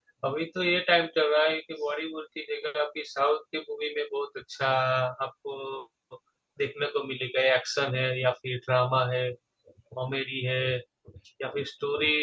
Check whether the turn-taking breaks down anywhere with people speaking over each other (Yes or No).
No